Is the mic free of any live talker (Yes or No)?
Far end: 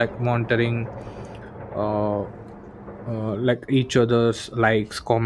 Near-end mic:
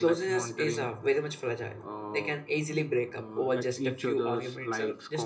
No